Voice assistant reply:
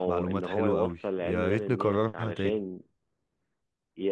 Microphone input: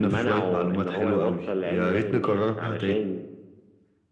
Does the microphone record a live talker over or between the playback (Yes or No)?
No